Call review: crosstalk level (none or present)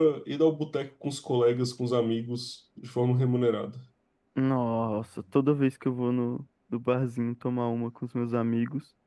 none